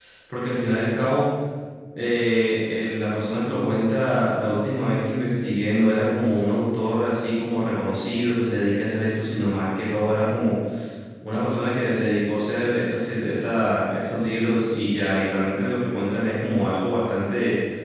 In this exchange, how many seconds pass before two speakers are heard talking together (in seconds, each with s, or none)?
none